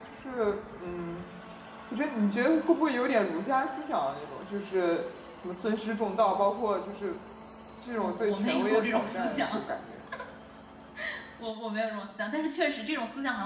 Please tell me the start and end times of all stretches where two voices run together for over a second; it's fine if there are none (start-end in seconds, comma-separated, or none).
8.0-9.7